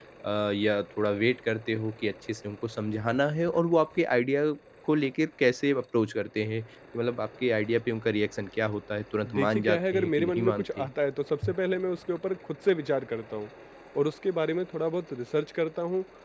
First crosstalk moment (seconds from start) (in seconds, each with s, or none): 9.2 s